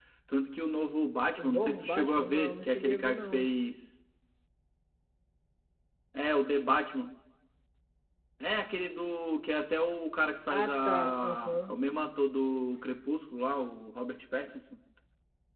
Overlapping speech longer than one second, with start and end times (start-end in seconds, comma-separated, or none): 1.4-3.5, 10.5-11.7